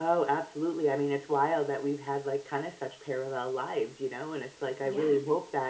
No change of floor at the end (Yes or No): Yes